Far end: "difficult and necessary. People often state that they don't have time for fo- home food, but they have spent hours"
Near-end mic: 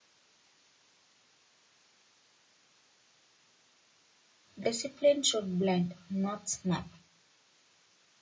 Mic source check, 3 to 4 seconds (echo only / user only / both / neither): neither